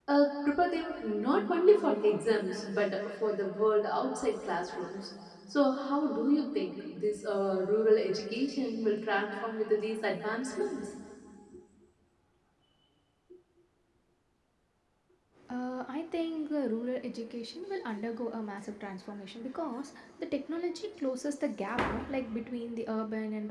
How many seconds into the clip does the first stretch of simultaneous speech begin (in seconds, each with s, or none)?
none